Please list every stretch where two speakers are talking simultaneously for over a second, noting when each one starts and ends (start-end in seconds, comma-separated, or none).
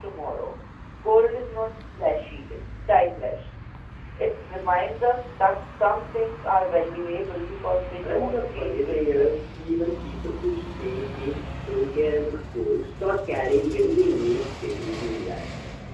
8.1-9.5